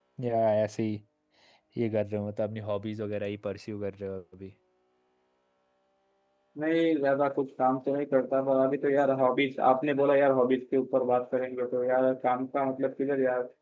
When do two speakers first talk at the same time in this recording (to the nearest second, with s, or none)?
none